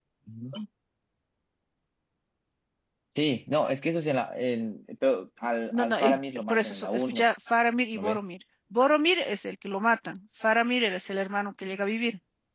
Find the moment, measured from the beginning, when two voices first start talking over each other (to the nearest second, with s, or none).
6 s